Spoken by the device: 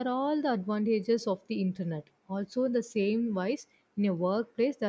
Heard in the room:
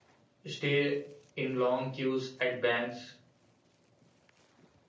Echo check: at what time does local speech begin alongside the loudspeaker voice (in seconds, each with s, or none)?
0.4 s